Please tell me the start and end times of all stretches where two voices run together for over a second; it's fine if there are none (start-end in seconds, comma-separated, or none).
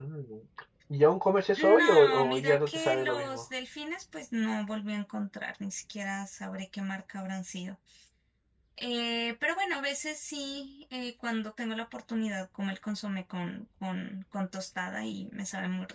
1.6-3.4